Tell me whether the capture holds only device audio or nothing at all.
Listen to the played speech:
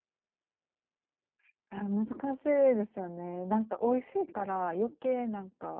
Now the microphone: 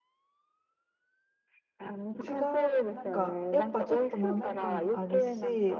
No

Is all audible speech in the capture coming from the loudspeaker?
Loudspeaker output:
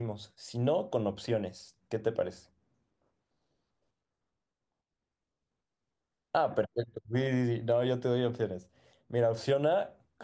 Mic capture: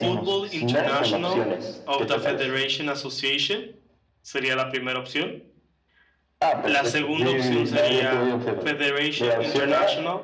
No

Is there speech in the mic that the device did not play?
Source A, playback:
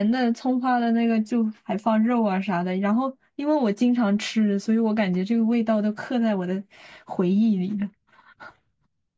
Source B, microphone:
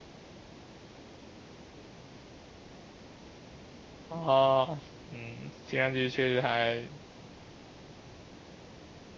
Yes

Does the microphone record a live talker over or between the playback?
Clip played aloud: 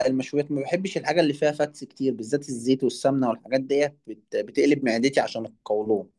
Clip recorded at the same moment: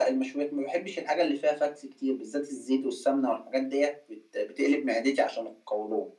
No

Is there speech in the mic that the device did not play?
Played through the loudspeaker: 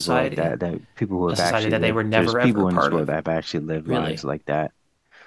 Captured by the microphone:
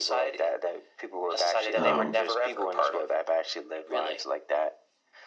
Yes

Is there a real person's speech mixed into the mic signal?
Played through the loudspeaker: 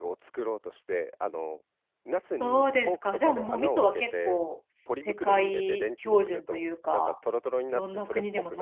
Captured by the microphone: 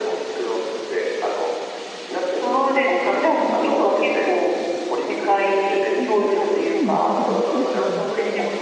Yes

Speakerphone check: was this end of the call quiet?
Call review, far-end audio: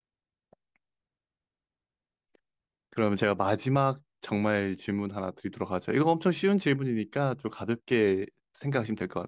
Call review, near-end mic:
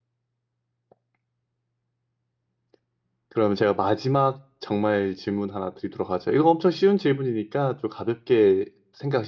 Yes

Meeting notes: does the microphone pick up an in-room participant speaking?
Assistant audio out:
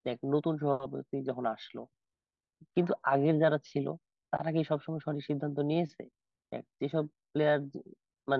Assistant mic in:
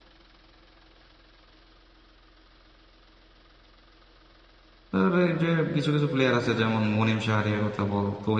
Yes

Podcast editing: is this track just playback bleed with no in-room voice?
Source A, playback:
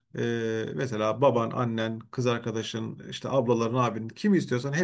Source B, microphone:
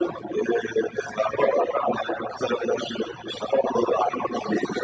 Yes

